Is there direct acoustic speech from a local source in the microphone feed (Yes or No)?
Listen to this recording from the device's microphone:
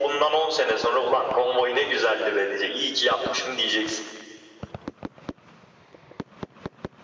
No